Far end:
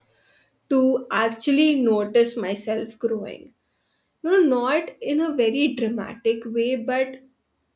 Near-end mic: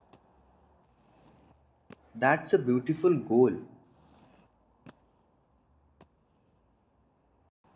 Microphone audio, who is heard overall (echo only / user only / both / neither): user only